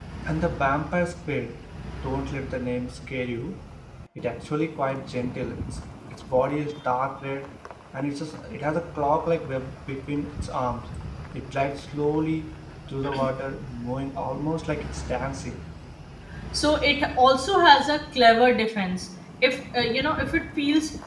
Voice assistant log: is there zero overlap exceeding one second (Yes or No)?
Yes